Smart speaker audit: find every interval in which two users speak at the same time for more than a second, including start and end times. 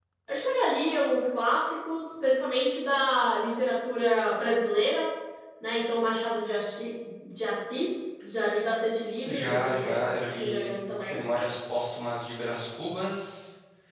9.2-10.7

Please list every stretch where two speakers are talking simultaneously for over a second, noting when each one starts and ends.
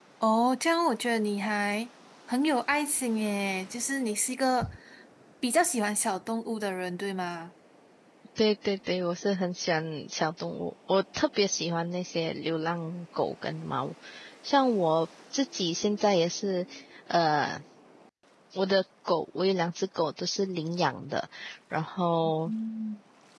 none

